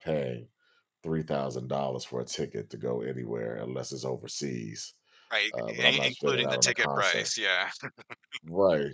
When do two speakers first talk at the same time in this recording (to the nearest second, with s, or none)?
6 s